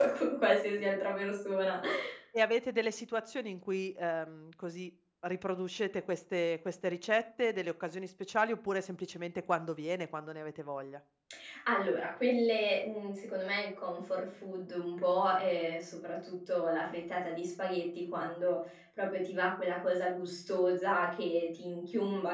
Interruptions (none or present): none